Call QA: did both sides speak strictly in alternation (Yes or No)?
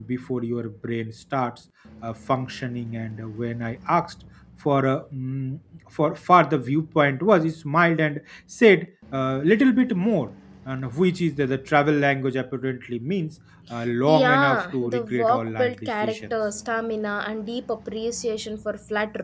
No